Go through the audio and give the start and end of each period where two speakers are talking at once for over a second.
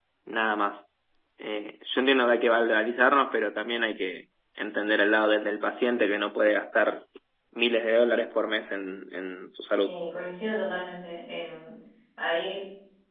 none

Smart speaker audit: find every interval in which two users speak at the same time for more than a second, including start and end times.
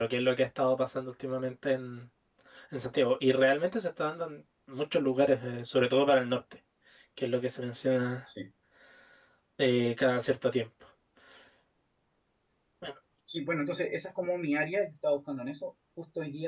none

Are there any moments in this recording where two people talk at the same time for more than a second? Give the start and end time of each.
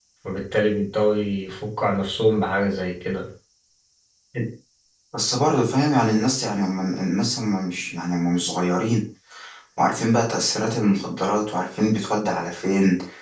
none

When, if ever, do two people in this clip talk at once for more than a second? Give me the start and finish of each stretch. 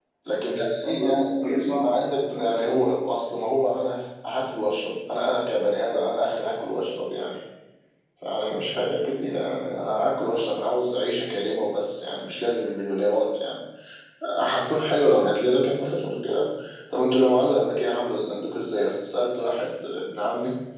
0.8-2.8

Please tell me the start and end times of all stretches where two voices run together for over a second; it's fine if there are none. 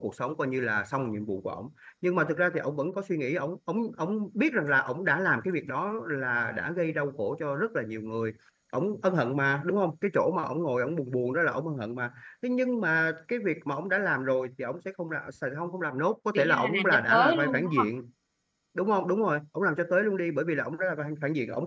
16.4-17.9

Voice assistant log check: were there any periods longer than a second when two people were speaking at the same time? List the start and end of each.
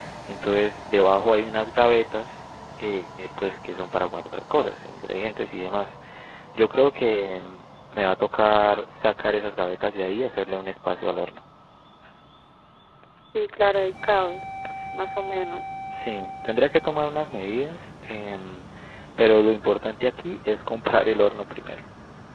none

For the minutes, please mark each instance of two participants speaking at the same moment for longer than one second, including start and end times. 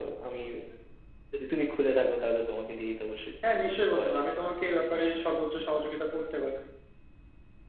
none

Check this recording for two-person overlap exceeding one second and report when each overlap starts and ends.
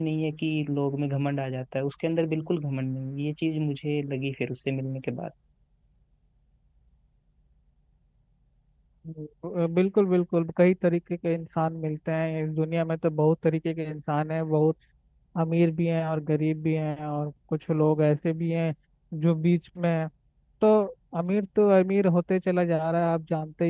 none

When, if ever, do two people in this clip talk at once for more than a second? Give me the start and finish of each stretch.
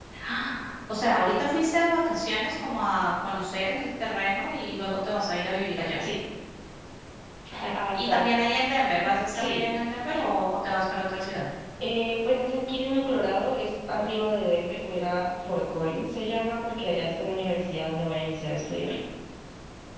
none

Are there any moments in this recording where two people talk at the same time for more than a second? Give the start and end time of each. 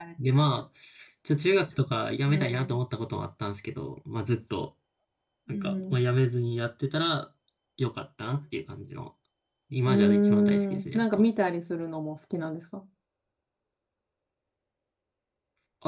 9.9-11.2

